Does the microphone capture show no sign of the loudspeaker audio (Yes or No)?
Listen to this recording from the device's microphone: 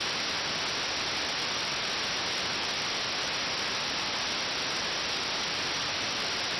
Yes